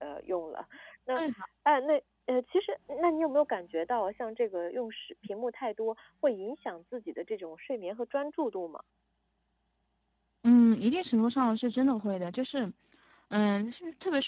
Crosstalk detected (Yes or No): No